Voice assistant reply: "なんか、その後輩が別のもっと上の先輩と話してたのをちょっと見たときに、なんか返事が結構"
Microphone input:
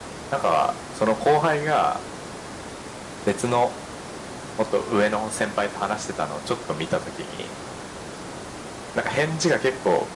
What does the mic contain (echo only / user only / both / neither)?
echo only